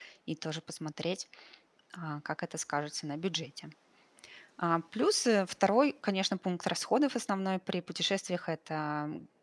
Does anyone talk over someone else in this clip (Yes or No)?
No